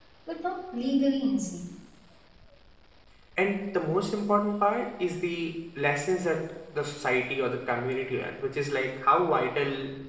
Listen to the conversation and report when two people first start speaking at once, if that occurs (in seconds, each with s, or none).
none